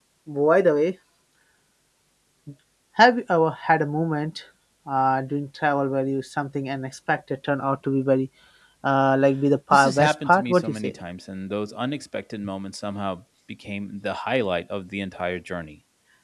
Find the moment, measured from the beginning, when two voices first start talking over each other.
9.7 s

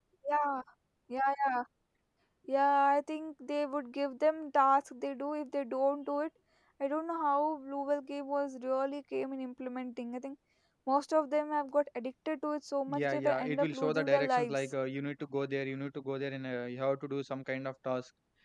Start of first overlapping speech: 12.9 s

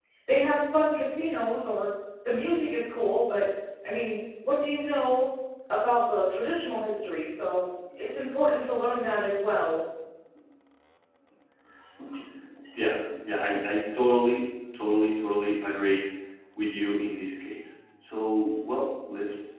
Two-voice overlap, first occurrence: none

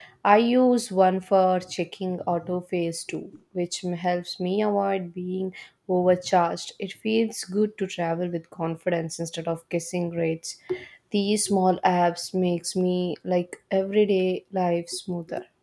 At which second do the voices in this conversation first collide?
none

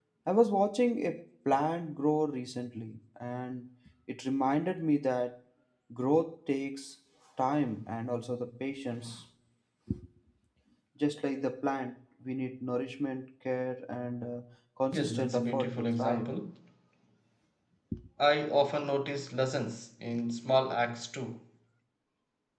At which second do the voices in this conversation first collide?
14.9 s

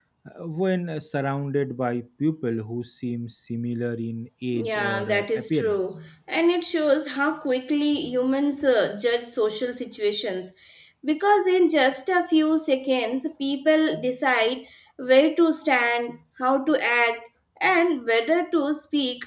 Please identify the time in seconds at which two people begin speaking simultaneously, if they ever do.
4.5 s

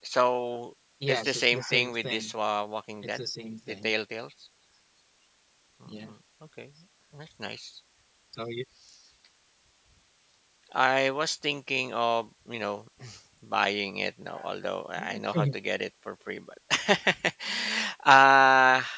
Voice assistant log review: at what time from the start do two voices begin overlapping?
1.1 s

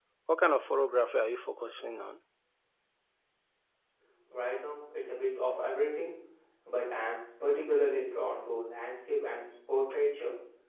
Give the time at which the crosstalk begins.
none

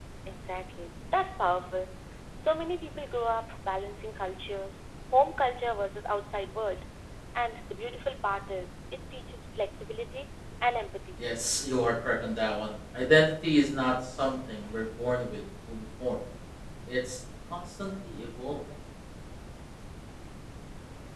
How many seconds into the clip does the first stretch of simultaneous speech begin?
none

